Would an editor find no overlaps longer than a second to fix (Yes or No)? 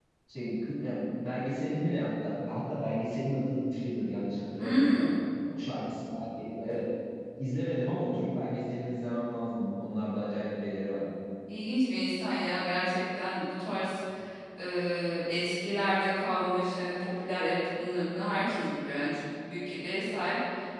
Yes